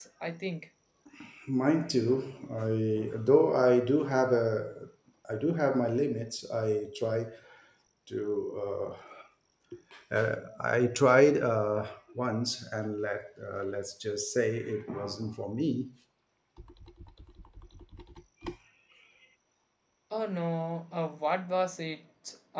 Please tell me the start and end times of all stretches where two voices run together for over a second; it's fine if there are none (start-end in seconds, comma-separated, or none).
none